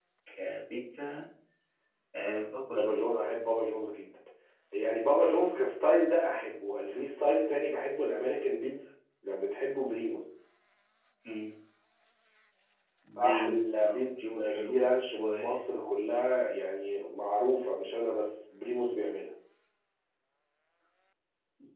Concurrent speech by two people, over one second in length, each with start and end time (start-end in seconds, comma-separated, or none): 13.2-15.7